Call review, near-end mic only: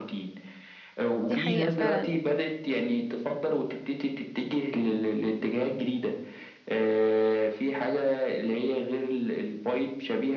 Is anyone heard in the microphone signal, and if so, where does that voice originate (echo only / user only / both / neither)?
both